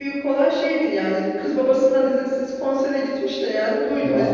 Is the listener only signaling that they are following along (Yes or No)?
Yes